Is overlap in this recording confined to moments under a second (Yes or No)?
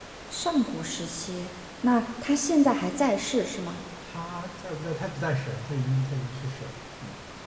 Yes